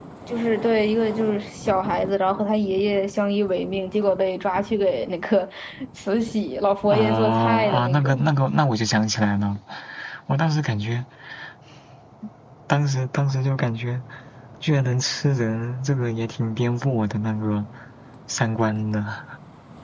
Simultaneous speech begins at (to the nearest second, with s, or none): 7 s